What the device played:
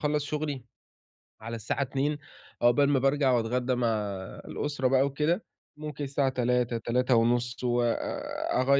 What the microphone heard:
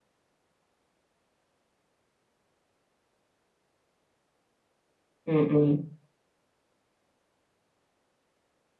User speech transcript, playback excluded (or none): إمم، إمم.